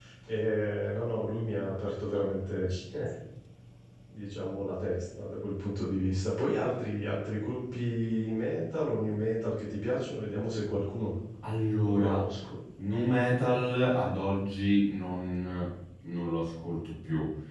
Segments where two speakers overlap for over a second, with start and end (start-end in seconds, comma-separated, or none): none